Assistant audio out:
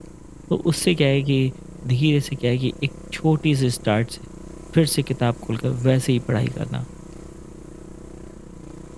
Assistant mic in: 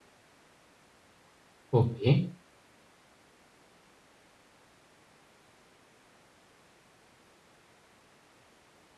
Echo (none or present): none